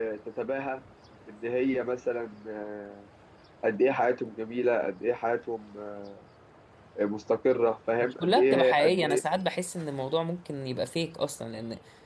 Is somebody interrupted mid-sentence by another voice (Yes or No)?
Yes